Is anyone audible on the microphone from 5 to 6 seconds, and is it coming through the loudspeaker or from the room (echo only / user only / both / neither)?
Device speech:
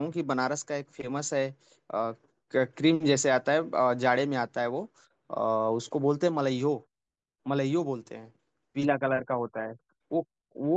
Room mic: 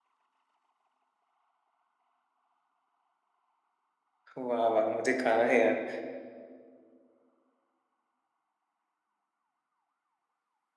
user only